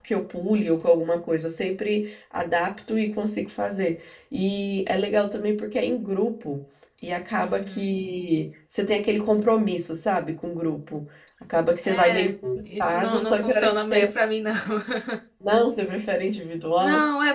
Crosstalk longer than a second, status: present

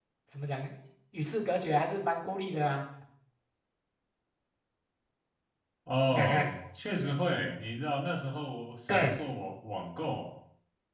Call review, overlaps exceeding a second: none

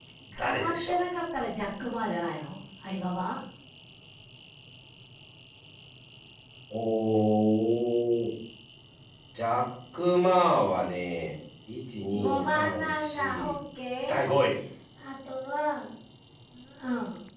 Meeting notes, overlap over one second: present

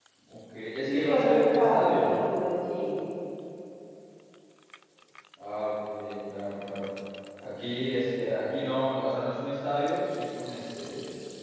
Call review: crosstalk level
present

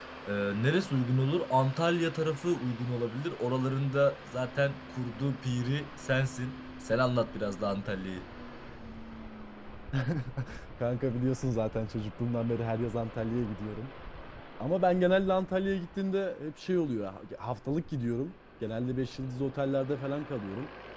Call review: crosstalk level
none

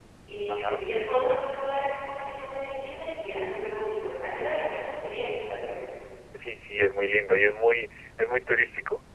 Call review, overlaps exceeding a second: none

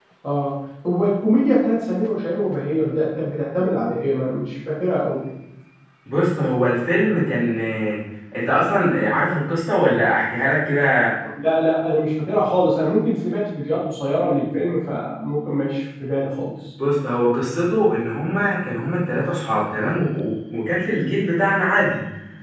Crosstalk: none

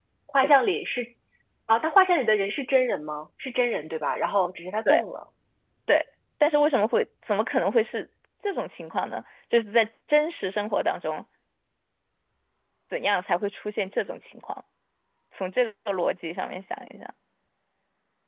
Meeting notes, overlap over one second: none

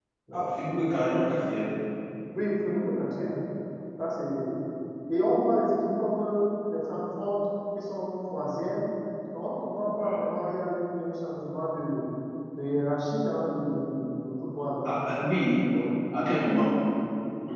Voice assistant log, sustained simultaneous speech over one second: none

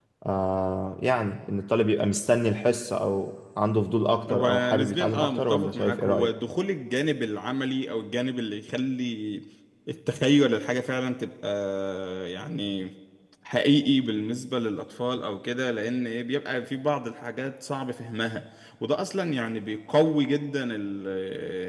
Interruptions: present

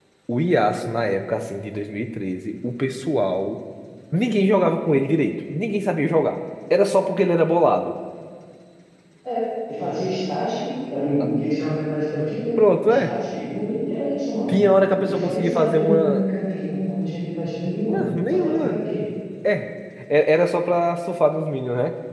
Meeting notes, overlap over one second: present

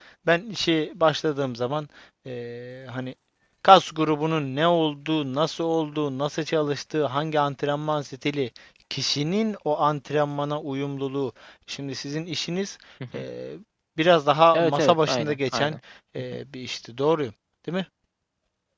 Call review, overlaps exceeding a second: present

